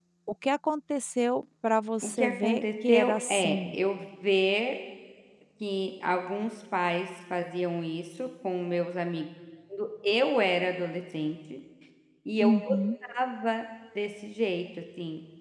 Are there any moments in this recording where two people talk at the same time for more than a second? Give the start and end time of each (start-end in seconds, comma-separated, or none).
2.0-3.8